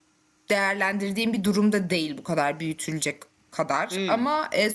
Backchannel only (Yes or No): Yes